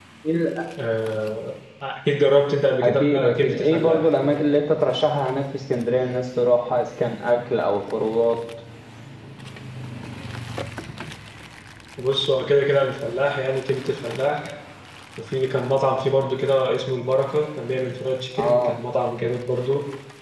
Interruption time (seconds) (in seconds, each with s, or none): 2.8 s